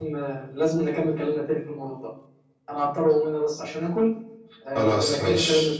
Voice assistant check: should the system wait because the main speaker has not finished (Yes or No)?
No